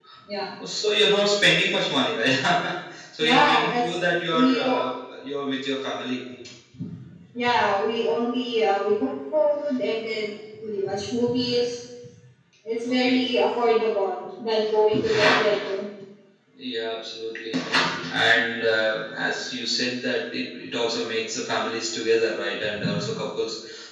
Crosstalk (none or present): present